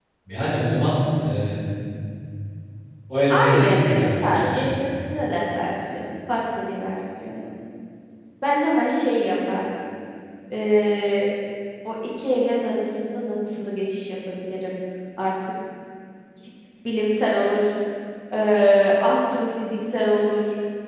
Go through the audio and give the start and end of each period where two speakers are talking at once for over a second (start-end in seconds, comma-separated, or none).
3.3-4.8